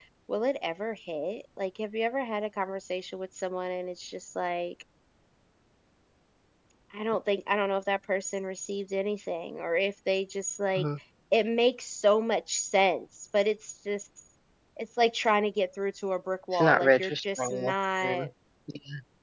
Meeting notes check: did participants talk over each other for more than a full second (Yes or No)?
Yes